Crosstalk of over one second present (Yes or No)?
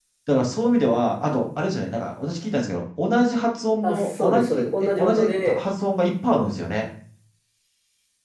Yes